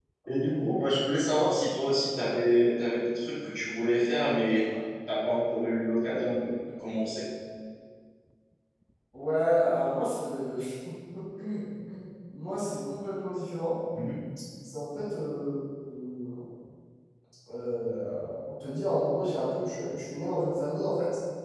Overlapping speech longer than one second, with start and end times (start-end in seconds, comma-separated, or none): none